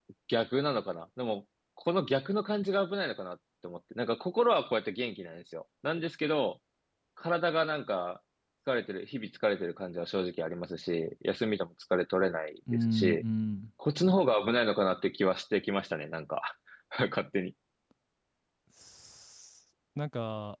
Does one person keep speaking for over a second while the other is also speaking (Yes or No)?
No